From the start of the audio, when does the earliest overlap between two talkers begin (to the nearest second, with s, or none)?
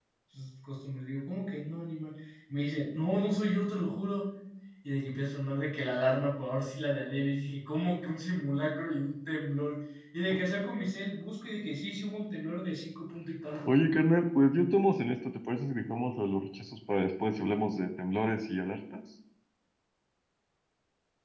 none